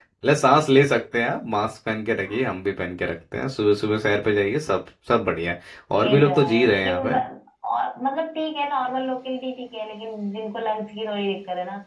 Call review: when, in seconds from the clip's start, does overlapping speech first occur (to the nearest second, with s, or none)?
6 s